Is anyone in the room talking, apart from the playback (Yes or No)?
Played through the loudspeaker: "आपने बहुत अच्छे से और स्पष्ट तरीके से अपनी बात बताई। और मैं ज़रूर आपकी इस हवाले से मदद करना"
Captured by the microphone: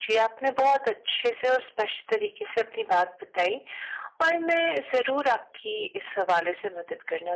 No